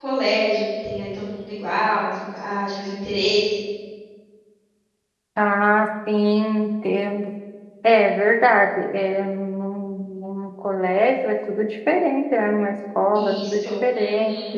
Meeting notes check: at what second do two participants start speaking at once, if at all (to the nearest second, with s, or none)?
13 s